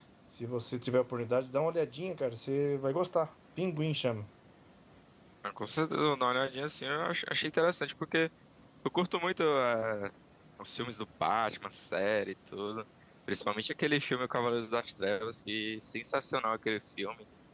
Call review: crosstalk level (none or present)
none